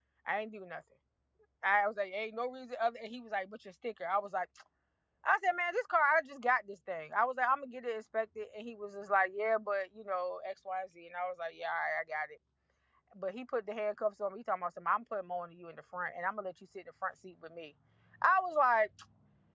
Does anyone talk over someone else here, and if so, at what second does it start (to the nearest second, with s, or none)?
none